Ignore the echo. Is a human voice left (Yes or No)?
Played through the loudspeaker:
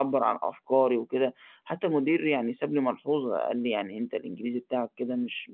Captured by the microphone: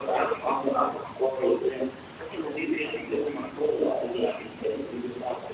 No